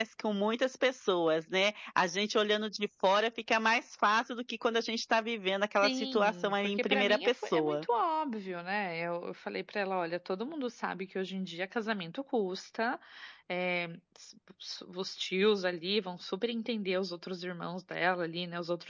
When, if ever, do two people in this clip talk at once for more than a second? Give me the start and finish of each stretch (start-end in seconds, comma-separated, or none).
5.8-7.8